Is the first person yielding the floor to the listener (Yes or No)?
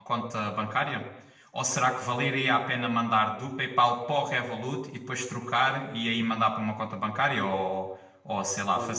Yes